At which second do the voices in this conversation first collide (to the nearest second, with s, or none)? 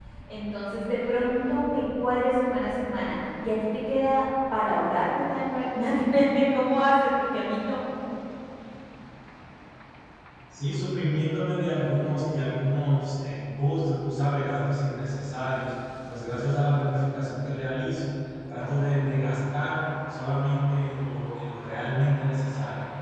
none